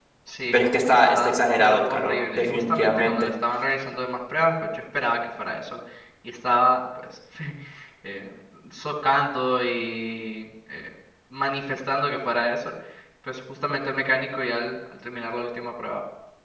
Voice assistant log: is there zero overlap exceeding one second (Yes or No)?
No